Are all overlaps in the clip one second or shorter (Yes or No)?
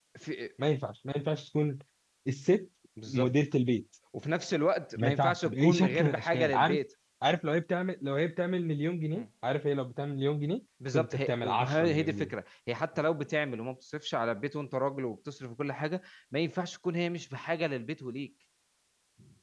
No